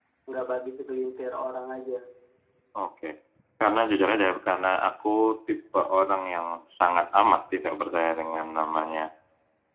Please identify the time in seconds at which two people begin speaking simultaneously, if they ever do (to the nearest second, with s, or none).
none